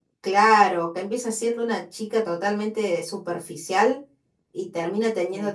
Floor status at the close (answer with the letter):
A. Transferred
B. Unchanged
B